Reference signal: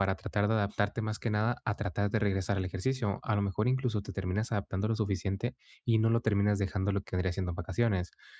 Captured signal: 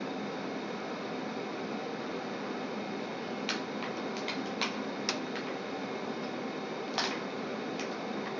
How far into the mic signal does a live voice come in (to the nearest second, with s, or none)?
none